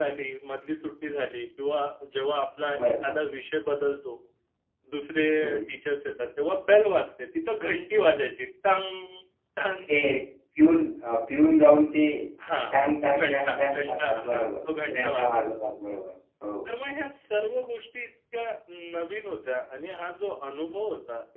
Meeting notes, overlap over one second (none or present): present